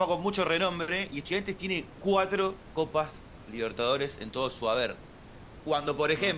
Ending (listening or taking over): listening